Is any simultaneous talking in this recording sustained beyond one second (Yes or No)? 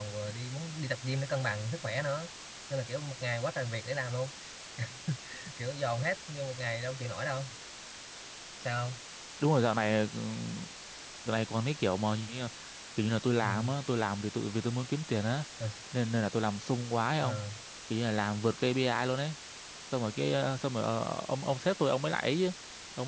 No